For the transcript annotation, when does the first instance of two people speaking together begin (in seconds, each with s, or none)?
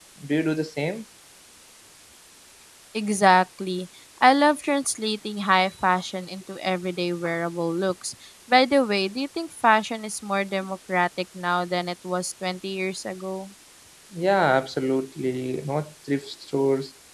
none